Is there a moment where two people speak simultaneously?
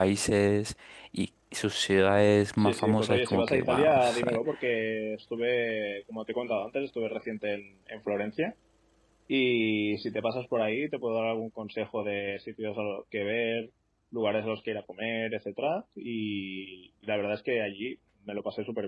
Yes, from 2.6 s

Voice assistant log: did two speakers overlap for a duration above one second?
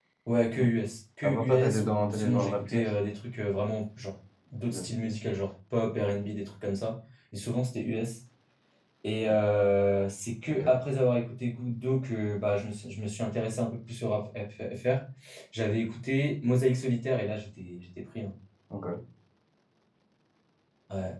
Yes, from 1.2 s

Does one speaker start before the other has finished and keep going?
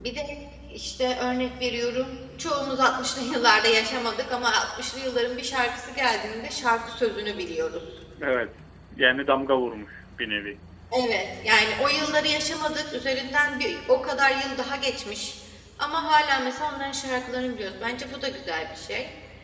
No

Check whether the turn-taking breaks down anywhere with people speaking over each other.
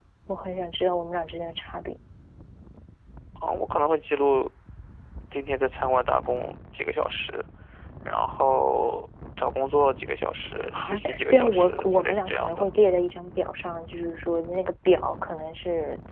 Yes, from 10.7 s

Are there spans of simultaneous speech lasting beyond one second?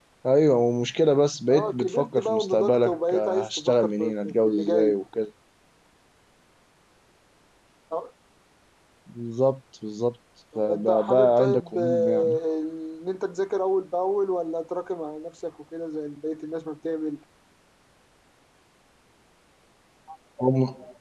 Yes, from 1.5 s

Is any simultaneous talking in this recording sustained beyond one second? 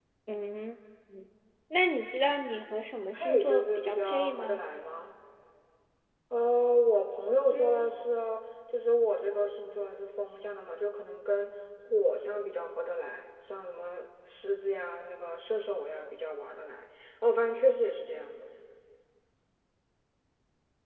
Yes, from 3.2 s

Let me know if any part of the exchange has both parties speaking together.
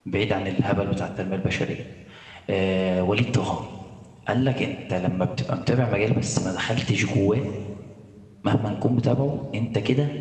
No

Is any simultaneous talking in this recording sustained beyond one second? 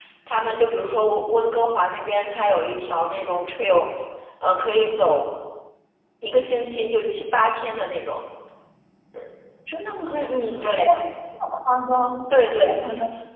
No

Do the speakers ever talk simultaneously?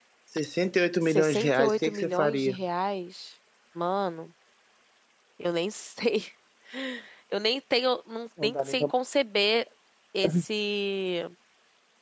Yes, from 1.0 s

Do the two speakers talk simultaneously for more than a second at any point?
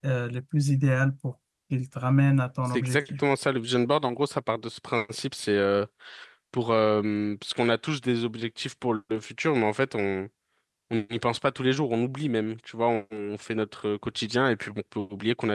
No

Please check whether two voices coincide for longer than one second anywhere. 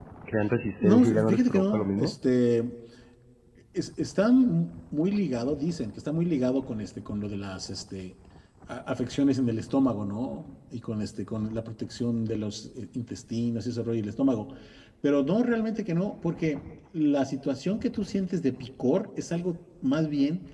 Yes, from 0.8 s

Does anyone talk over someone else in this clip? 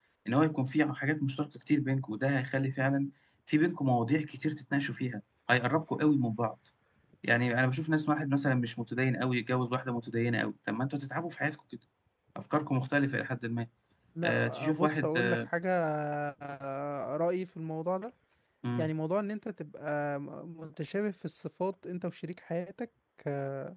Yes, from 14.2 s

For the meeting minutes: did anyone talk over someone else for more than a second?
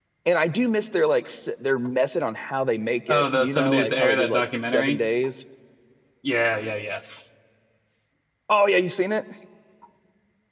Yes, from 3.1 s

